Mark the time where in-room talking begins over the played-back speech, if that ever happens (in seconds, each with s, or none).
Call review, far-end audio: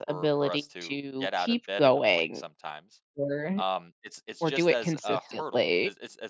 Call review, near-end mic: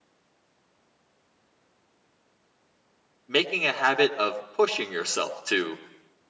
3.3 s